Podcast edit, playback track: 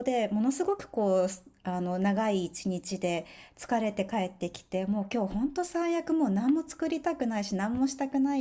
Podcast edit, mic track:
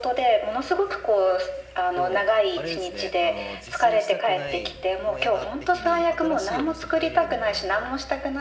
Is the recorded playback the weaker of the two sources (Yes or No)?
No